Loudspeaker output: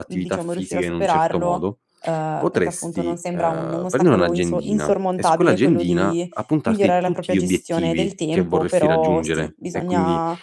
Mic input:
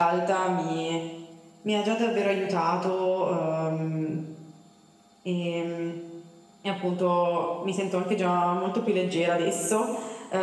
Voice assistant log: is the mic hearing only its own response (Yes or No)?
No